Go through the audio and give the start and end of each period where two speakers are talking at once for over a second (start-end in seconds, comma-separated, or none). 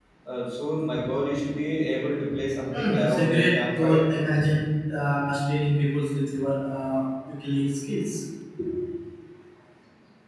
2.7-4.0